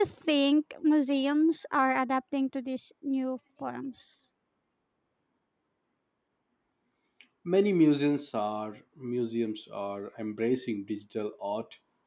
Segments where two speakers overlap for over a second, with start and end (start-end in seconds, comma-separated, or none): none